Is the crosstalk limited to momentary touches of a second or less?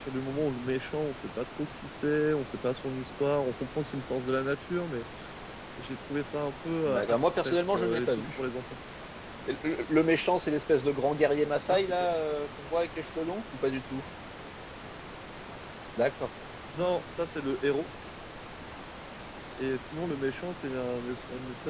No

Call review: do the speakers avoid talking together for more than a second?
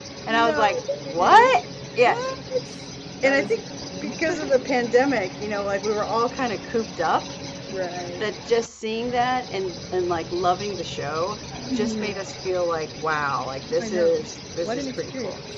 No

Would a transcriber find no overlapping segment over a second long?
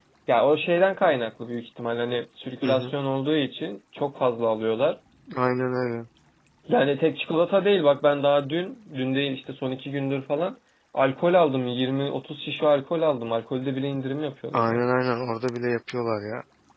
Yes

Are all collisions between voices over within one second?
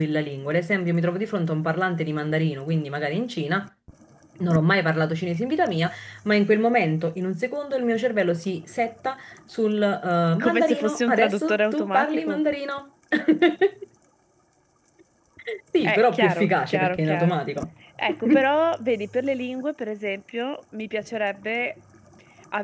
No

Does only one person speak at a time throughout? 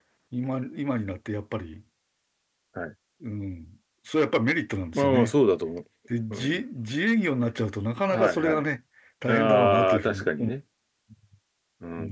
No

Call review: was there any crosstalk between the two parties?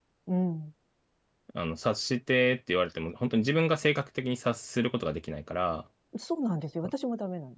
No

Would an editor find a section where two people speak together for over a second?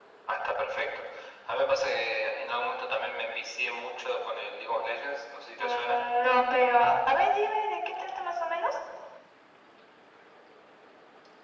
No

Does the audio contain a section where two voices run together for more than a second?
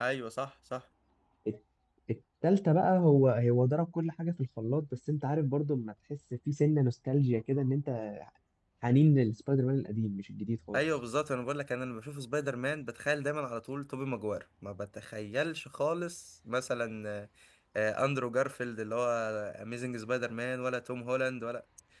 No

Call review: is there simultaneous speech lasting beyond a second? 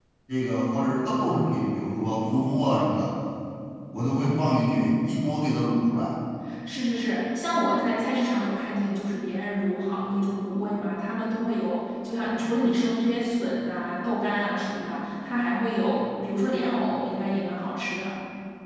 No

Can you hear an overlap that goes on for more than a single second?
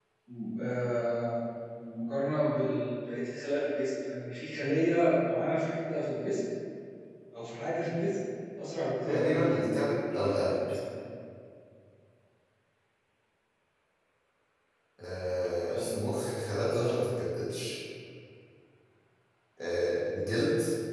Yes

